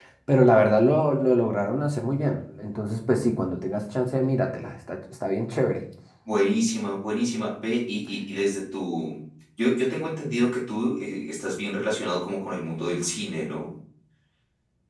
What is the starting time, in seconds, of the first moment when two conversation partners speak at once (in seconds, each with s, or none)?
none